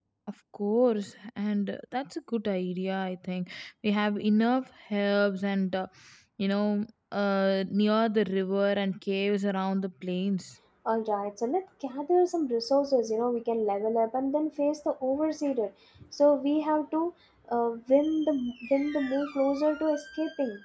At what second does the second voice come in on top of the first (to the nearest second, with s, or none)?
none